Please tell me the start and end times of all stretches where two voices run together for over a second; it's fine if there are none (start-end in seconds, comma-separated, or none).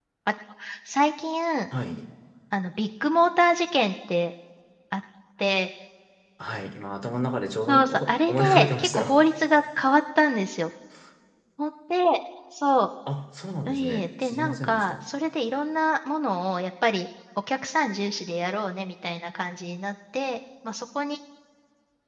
7.7-9.2, 13.7-14.9